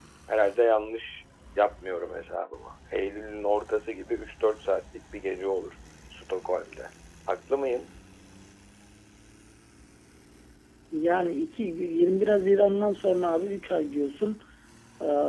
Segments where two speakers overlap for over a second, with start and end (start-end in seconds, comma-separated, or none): none